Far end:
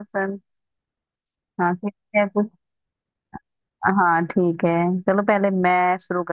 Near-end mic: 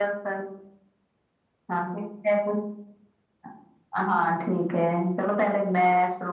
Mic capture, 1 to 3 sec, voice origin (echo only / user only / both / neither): echo only